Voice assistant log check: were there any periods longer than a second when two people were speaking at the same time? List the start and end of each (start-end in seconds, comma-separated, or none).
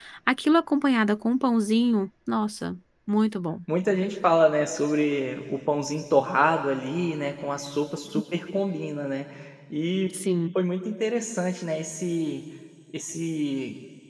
none